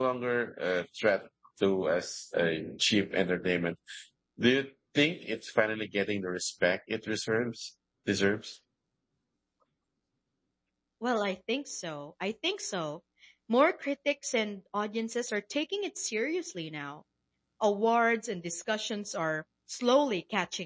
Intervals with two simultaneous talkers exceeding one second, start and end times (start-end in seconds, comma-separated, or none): none